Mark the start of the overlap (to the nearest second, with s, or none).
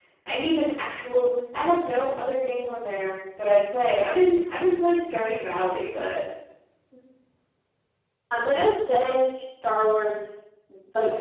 none